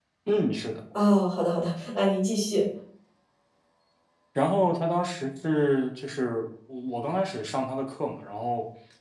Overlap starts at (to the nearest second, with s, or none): none